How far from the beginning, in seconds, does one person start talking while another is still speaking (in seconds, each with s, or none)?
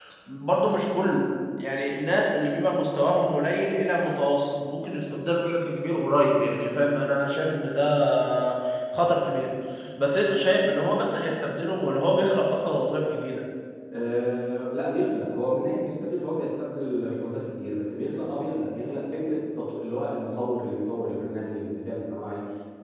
none